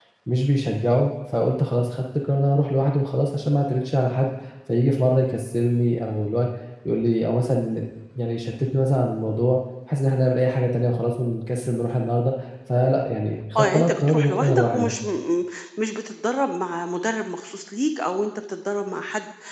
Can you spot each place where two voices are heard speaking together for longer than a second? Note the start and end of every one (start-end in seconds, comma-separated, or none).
13.6-14.9